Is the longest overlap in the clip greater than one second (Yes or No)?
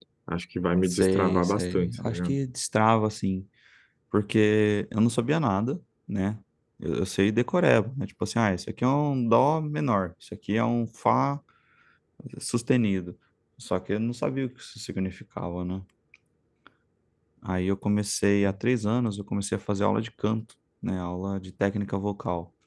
Yes